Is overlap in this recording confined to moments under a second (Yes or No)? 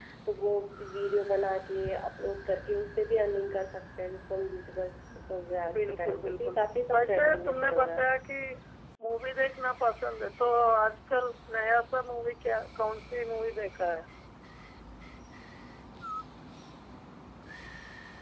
No